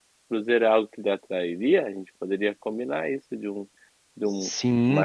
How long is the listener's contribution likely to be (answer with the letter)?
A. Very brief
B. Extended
B